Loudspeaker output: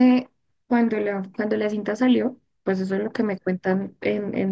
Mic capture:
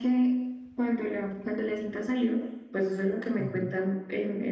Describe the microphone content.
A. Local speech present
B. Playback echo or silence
A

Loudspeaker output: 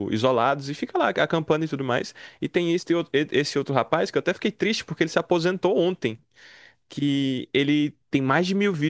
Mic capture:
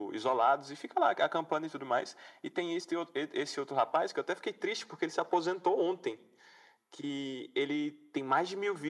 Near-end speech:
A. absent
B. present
A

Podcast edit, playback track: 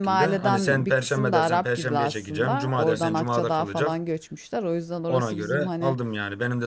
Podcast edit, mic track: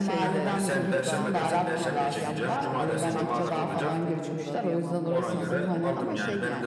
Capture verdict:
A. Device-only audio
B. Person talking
B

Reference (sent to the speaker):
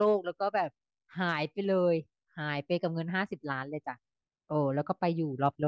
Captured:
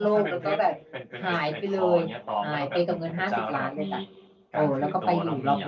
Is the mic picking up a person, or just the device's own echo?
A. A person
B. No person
A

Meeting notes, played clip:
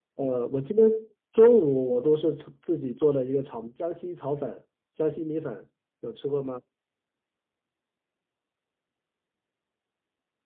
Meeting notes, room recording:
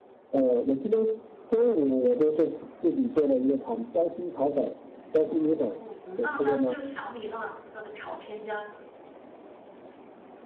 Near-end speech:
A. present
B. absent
A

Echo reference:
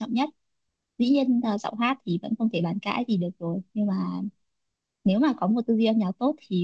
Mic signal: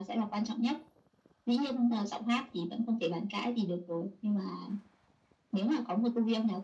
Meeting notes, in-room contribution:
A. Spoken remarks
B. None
B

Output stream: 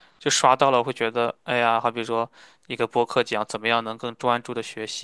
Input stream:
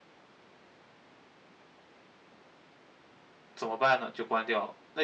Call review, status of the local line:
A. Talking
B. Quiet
A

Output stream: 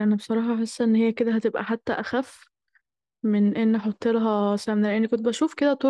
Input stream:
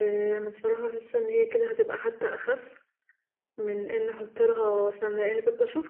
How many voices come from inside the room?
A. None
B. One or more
A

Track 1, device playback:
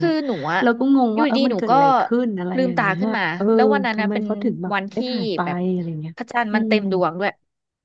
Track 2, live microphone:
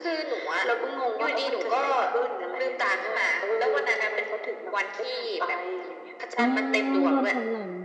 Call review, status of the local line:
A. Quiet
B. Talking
B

